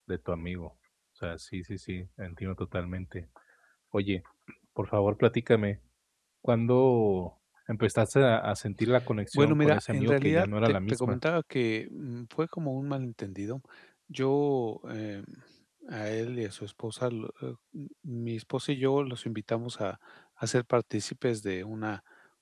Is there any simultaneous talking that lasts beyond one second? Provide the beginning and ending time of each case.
9.3-11.2

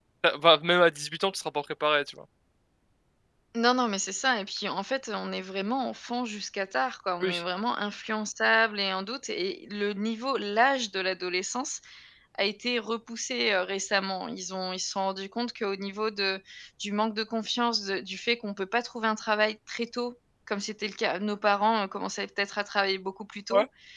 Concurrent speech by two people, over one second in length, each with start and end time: none

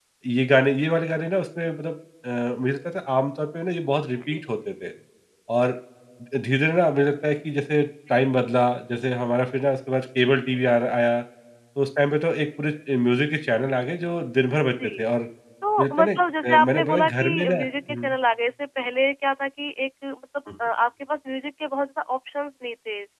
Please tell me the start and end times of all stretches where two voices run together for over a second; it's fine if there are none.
15.8-18.1

